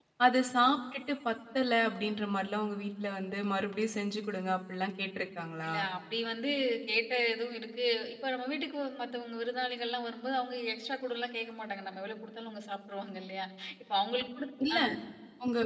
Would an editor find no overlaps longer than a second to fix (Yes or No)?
Yes